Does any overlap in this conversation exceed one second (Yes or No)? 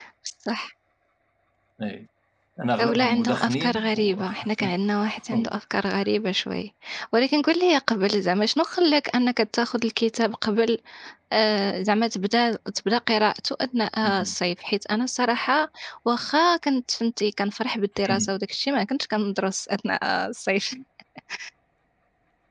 Yes